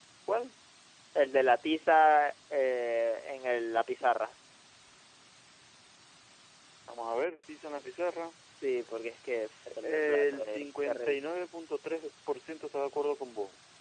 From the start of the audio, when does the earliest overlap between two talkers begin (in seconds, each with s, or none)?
9.7 s